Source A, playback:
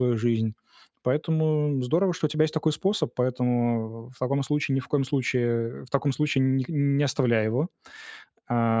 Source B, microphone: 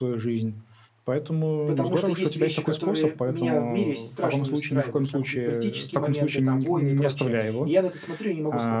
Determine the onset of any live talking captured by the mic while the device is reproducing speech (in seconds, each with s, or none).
1.6 s